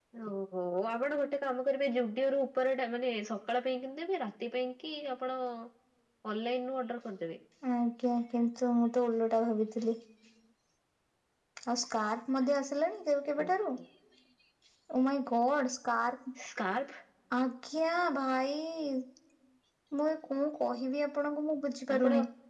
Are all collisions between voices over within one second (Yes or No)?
Yes